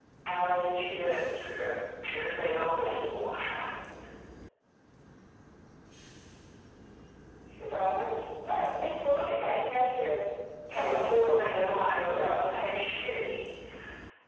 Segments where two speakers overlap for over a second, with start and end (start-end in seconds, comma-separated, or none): 10.7-12.5